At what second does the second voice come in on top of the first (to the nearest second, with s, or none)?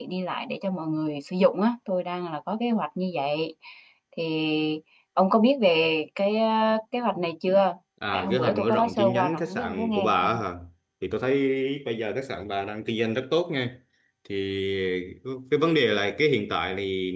8 s